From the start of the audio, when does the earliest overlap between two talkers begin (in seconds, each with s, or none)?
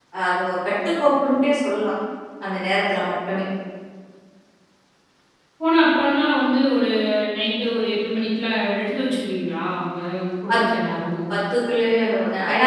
none